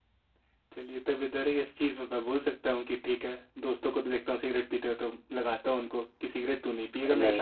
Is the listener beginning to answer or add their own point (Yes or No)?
Yes